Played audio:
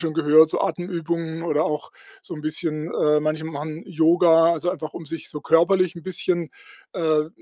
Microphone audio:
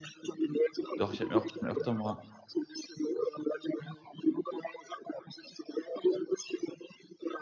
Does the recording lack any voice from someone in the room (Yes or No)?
No